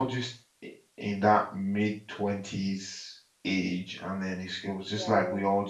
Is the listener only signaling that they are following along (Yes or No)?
Yes